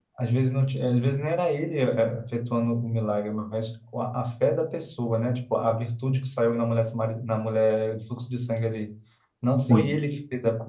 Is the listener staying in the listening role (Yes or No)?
Yes